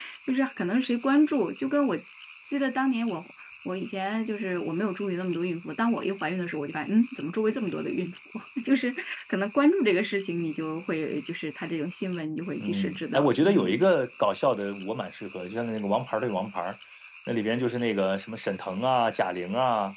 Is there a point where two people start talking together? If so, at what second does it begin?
12.6 s

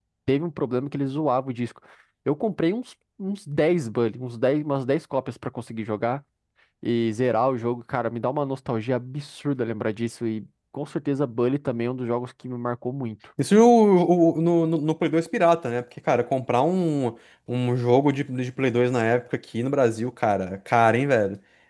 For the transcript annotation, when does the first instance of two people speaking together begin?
none

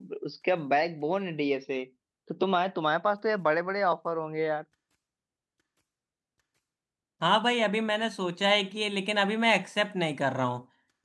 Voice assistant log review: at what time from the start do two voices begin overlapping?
none

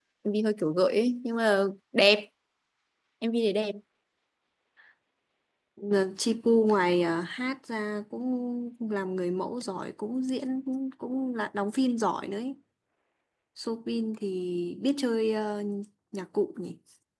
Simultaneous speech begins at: none

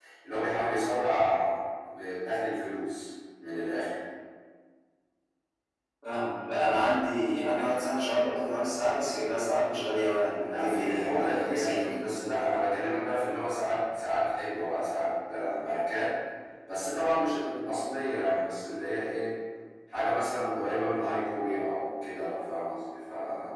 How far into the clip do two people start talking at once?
10.4 s

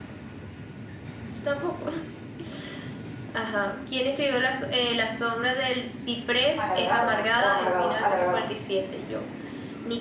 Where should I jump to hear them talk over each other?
6.6 s

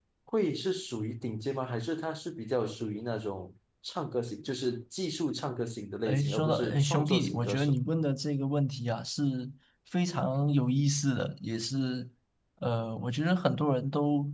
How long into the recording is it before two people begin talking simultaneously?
6.0 s

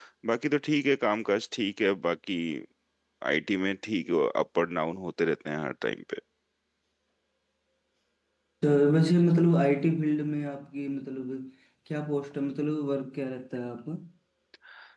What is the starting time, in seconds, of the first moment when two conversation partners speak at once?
none

